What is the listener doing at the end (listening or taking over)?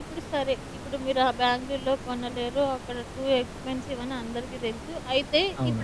listening